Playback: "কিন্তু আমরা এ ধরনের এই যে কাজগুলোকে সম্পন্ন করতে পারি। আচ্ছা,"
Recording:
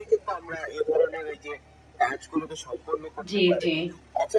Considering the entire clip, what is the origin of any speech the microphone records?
both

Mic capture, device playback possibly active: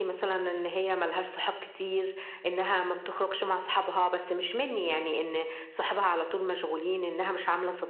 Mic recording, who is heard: echo only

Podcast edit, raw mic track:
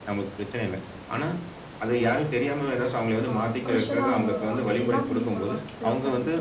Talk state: both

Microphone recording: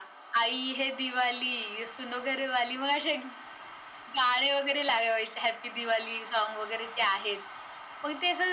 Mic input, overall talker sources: echo only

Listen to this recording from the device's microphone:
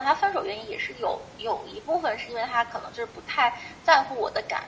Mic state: echo only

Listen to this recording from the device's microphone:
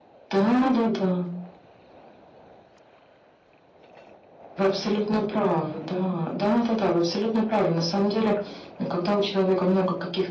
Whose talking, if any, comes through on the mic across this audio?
echo only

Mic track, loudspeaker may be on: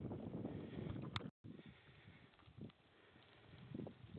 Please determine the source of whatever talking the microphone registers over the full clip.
neither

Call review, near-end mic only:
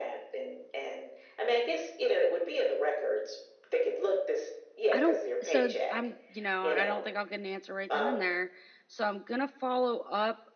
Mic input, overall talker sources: both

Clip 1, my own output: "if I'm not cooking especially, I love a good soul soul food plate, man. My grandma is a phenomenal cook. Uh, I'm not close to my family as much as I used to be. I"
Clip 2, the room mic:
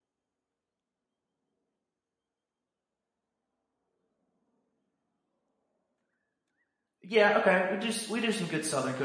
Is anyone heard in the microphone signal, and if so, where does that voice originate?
user only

